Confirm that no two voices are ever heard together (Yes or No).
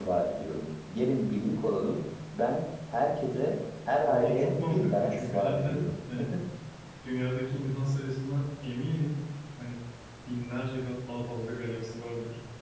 No